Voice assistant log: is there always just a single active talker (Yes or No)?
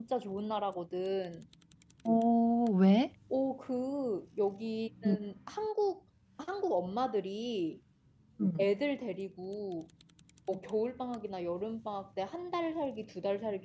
Yes